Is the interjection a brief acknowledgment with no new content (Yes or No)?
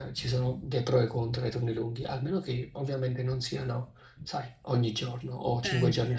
No